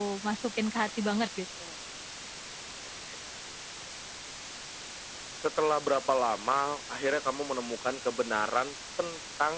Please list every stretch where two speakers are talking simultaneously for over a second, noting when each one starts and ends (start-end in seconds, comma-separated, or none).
none